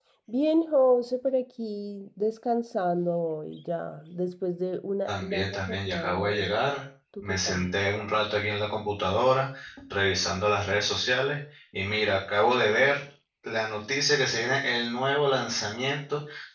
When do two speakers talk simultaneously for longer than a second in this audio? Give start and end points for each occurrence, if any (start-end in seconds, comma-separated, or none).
5.1-6.5